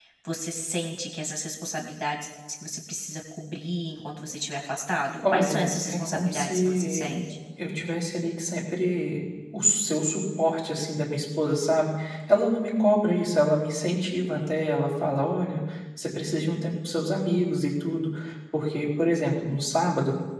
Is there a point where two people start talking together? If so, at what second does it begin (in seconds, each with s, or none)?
5.2 s